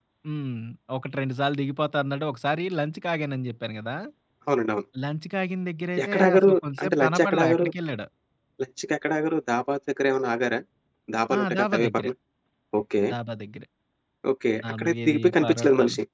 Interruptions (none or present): present